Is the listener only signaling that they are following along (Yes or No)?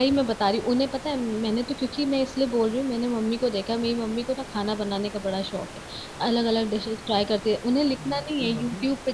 Yes